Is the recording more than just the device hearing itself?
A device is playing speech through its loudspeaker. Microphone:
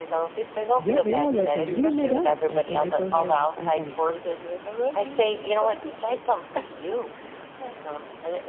Yes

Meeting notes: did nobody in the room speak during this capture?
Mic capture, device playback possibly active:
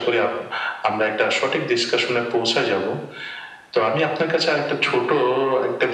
Yes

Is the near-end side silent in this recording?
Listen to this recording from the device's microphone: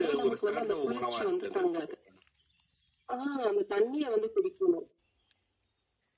Yes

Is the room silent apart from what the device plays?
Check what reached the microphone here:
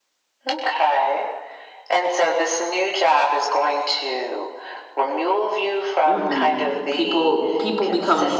No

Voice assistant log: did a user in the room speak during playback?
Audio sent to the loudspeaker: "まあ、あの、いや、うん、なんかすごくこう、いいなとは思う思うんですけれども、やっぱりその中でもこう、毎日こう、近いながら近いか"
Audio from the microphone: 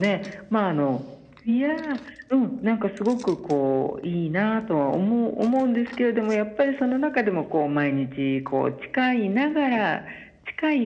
No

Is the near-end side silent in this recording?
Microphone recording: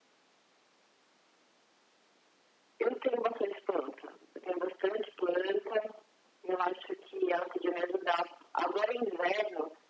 Yes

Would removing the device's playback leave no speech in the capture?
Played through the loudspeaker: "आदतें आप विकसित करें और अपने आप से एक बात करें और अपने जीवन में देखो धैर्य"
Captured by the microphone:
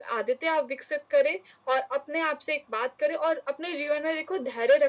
Yes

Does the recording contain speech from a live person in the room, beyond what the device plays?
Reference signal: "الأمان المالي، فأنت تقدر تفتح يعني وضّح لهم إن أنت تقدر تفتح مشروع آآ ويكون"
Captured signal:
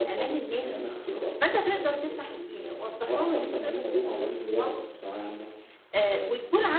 Yes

